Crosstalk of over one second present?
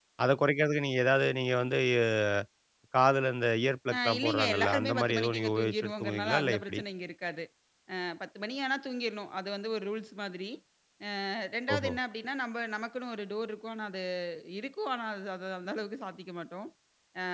Yes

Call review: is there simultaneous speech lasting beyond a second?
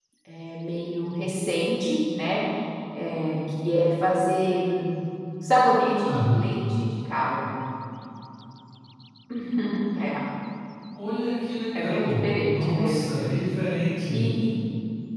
Yes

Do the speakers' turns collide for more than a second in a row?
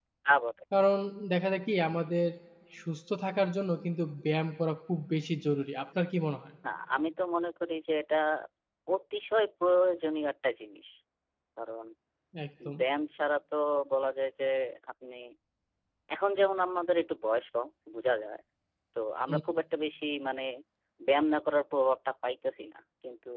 No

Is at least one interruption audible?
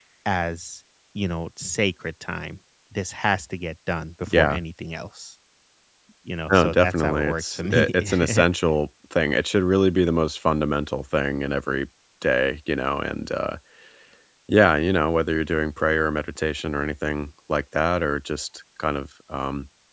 Yes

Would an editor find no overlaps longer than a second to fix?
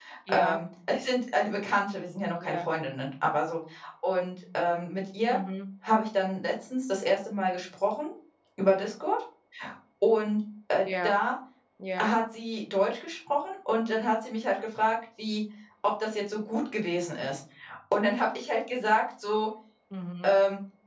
Yes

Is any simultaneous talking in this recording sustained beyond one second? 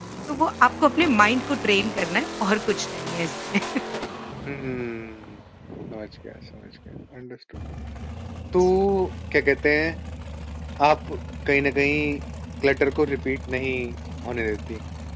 No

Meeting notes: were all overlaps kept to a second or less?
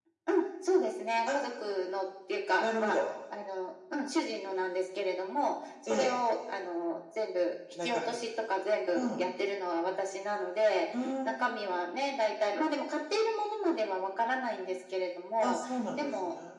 Yes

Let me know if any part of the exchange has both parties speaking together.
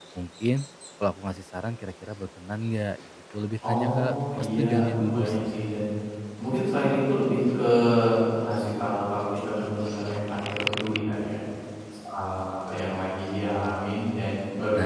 Yes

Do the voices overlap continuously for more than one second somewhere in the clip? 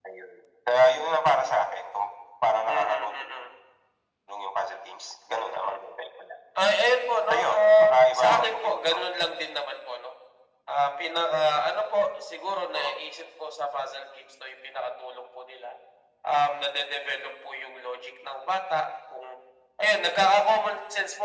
Yes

